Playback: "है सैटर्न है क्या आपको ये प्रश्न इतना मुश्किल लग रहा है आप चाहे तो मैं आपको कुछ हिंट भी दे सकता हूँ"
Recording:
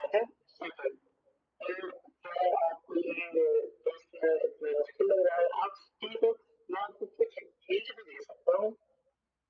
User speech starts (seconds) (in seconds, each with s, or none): none